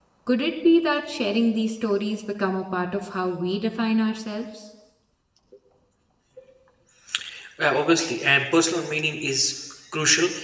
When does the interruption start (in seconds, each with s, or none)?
none